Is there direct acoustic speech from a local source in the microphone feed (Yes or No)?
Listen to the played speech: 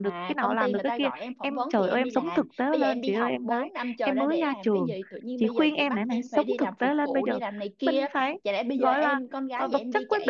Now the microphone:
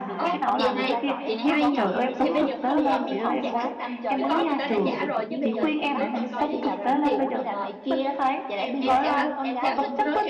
Yes